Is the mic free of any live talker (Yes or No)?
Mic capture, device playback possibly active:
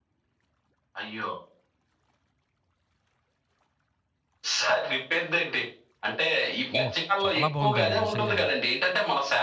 No